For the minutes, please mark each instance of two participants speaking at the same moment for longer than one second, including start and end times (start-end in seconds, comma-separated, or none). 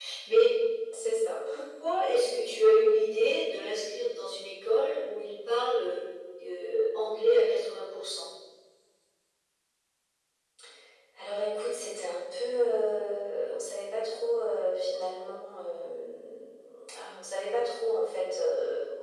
none